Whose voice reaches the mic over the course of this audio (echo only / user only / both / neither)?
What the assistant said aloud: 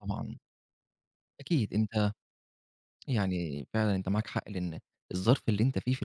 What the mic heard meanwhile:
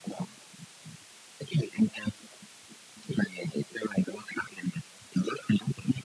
echo only